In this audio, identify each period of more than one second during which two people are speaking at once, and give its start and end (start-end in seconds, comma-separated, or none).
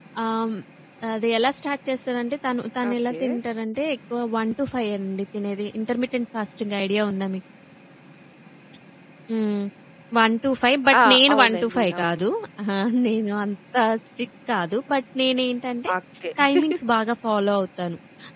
10.9-12.2